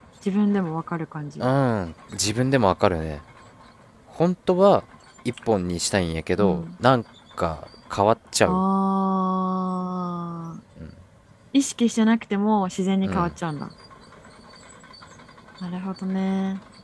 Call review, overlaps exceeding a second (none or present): none